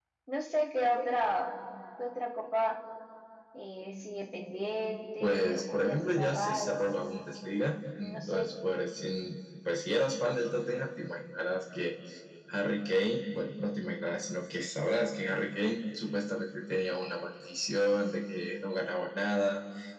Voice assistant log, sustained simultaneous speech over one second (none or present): present